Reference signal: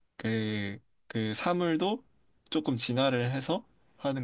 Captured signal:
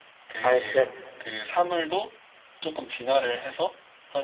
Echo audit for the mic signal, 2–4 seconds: echo only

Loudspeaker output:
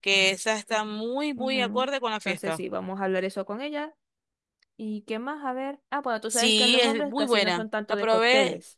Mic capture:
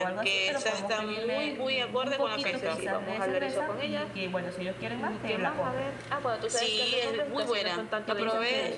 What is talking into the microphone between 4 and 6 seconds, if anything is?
both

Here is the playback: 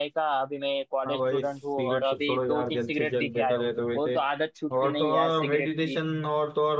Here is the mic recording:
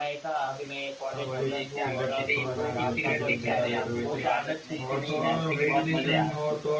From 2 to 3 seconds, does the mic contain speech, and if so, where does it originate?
both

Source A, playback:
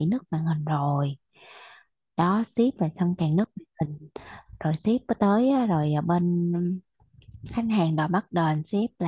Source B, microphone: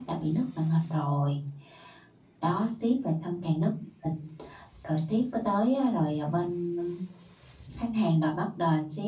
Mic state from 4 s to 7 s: echo only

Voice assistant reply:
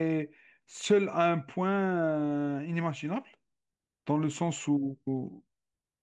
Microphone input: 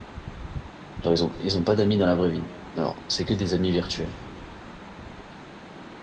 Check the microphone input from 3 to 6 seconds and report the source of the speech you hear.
user only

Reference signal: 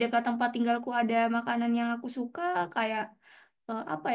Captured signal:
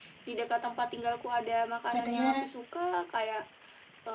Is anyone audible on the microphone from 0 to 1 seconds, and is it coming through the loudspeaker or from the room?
echo only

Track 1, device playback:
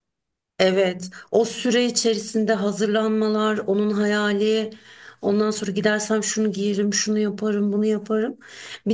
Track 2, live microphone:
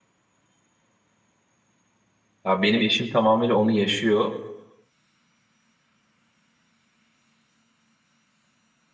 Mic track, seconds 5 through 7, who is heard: neither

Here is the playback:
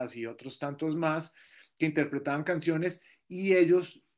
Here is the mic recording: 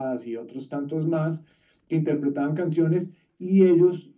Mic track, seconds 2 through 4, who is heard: echo only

